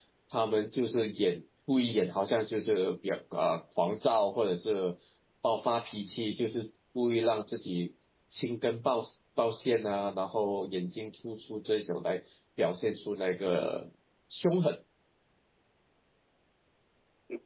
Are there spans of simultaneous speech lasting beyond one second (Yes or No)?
No